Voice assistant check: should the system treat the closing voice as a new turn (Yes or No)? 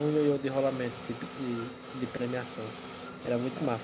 Yes